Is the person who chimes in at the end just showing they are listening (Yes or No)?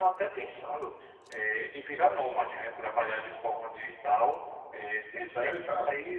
Yes